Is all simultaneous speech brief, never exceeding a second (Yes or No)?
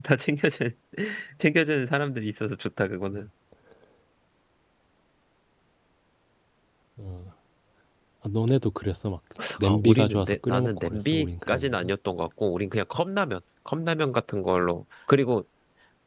No